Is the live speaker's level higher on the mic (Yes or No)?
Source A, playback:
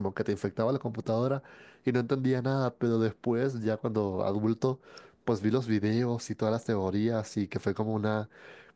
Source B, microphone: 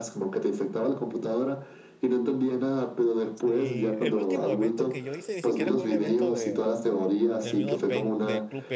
No